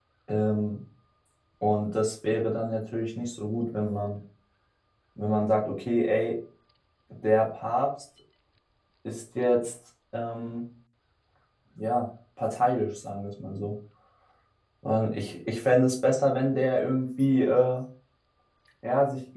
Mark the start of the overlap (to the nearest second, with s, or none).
none